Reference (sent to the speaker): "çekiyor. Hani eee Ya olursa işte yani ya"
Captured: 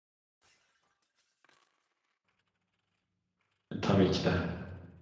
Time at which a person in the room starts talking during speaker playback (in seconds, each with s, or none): 3.7 s